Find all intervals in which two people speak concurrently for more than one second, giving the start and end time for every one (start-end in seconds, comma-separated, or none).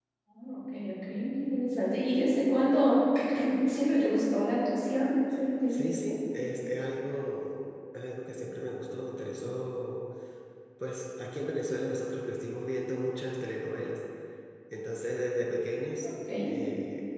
none